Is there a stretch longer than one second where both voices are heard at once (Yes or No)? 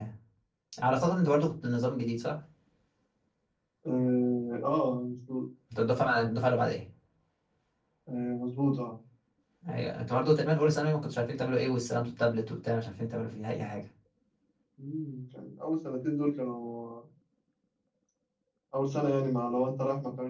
No